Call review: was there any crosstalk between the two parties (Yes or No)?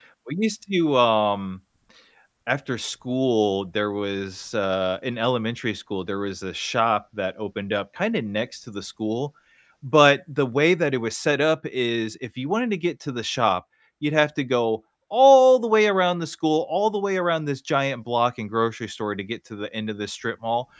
No